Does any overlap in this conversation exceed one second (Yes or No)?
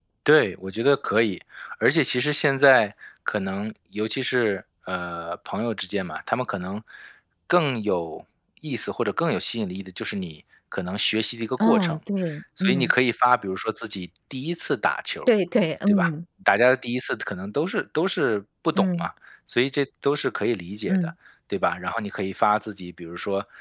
No